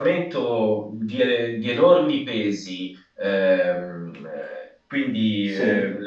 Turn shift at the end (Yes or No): No